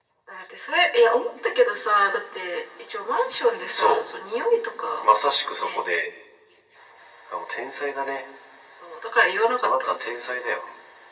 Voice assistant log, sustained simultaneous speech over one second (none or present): none